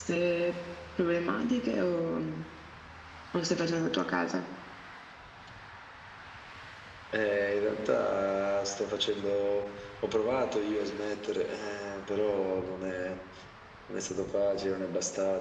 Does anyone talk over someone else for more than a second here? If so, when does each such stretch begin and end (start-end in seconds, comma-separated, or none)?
none